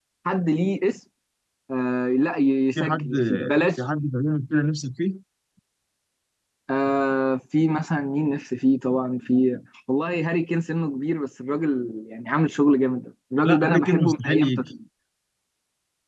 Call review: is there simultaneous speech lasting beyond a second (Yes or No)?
Yes